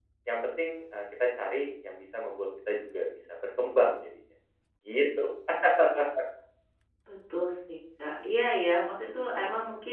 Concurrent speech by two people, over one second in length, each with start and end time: none

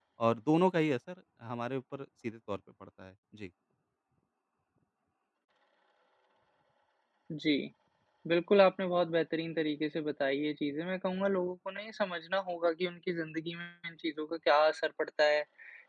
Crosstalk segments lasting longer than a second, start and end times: none

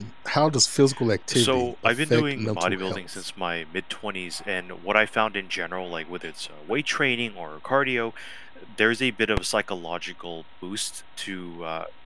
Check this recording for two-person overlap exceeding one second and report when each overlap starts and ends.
1.3-3.2

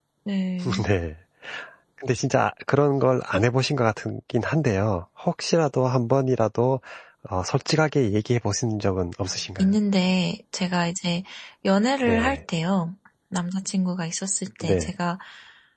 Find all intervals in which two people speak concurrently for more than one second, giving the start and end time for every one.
none

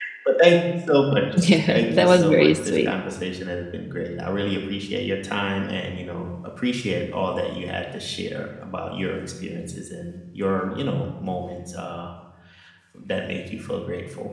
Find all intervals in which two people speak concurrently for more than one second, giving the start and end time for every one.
1.7-2.9

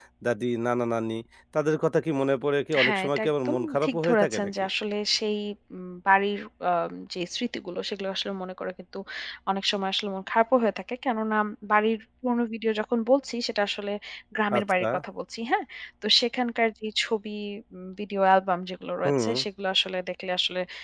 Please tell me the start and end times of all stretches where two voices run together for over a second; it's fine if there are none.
2.8-4.5

